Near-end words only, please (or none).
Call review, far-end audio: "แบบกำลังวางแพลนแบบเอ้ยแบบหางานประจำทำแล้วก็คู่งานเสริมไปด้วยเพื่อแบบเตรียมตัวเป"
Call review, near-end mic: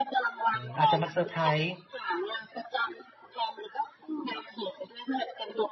อืมอาจจะมาเซอร์ไพรส์